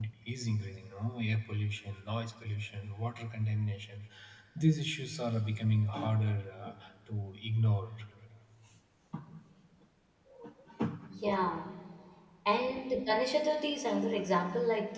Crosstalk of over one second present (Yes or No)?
No